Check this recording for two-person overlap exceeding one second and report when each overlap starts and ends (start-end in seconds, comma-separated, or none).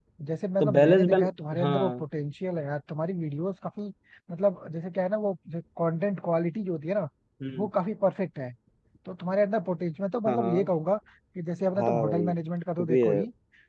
0.6-2.0